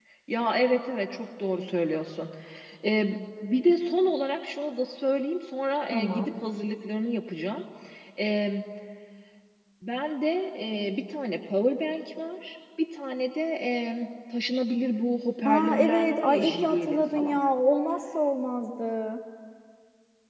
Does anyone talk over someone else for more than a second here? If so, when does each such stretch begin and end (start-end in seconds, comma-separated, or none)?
15.4-17.4